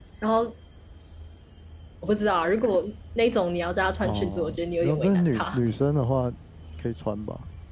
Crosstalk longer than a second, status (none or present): present